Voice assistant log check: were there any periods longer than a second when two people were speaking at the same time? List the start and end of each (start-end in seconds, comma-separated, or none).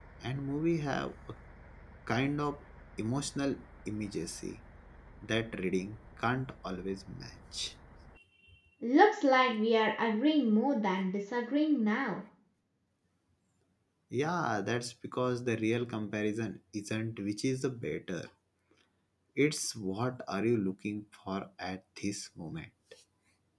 none